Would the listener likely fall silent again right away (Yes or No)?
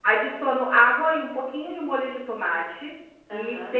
Yes